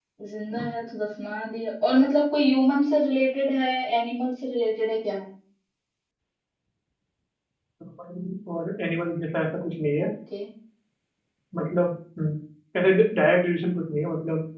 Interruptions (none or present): none